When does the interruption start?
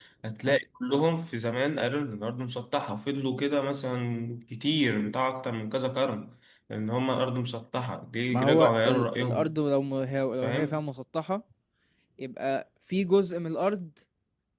8.3 s

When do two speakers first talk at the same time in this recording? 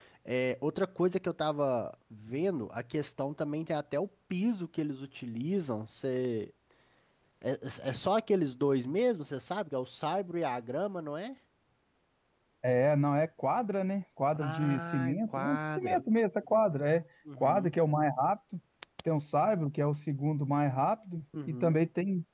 14.3 s

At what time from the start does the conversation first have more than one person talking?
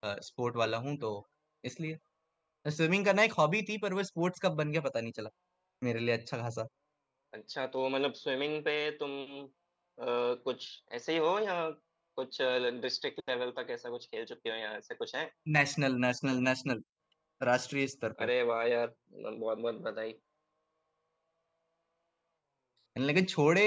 none

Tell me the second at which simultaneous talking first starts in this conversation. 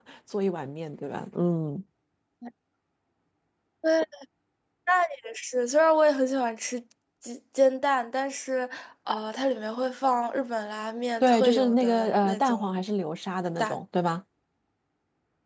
11.2 s

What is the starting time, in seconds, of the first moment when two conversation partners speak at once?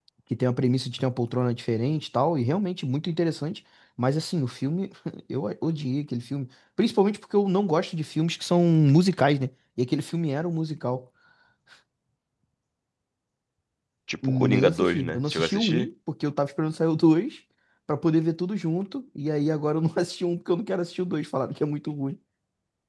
14.3 s

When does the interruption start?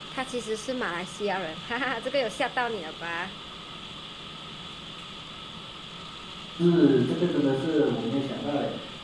none

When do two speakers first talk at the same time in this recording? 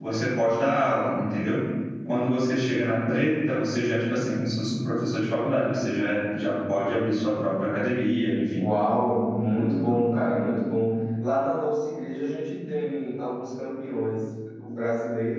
none

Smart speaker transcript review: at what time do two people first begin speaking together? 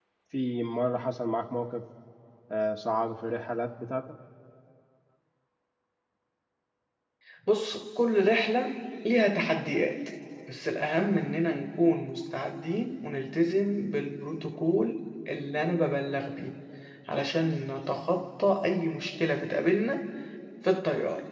none

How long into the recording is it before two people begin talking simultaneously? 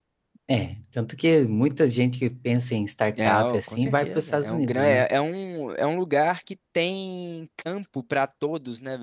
3.2 s

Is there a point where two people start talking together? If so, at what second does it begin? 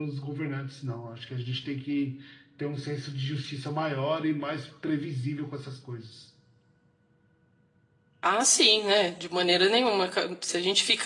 none

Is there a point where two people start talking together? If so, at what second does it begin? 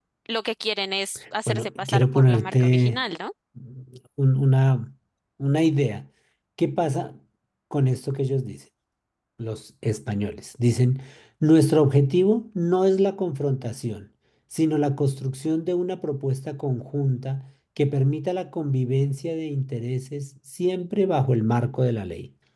1.5 s

